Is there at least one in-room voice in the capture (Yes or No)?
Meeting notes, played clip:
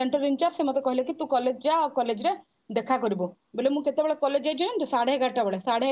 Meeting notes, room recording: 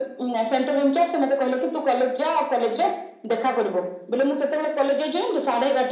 No